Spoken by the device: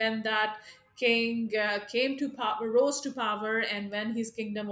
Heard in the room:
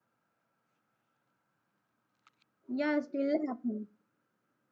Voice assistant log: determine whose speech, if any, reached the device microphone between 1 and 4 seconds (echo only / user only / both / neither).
user only